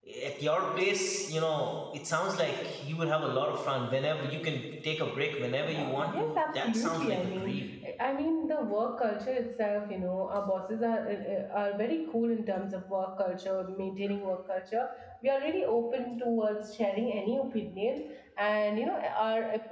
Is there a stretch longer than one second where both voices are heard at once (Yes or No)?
Yes